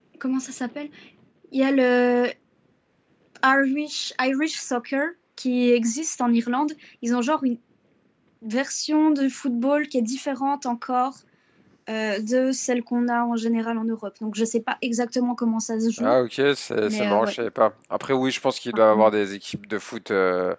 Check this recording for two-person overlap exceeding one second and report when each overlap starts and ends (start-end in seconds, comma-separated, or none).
none